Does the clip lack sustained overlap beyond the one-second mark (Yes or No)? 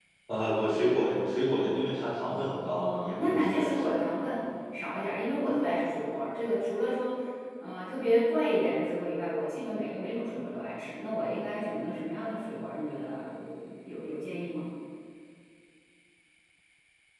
No